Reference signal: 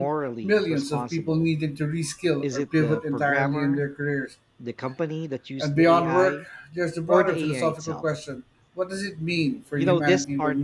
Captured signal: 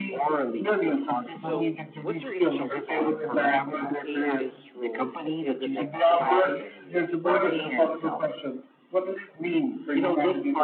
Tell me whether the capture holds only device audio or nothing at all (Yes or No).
No